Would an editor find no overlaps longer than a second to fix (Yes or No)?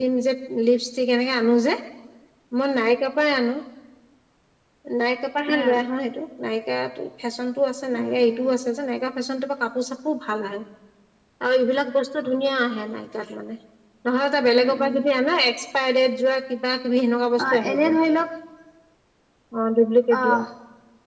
Yes